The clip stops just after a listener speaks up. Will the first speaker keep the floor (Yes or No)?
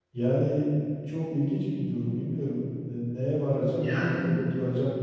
Yes